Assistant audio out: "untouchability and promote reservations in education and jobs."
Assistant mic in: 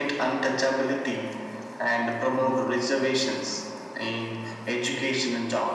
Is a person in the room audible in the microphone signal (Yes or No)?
No